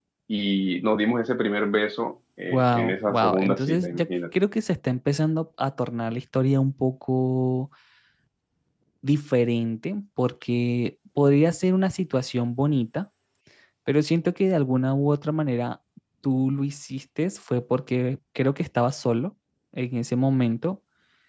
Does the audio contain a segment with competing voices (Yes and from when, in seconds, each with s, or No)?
Yes, from 2.5 s